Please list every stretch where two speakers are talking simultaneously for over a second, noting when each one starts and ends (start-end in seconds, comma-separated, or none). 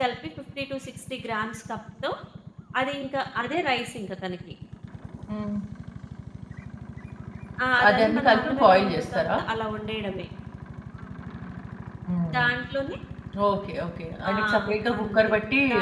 7.9-9.4